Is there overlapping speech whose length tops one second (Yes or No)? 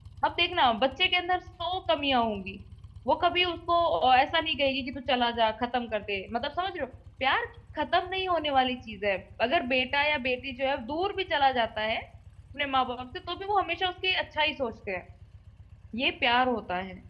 No